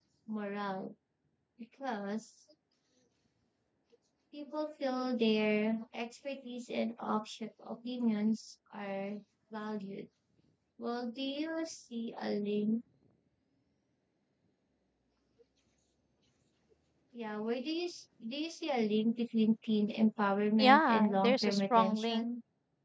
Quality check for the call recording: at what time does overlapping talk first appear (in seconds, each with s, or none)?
20.6 s